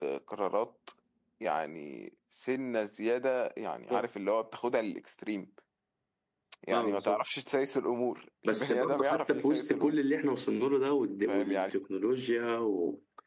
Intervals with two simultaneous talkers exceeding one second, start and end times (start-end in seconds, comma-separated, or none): 8.4-9.9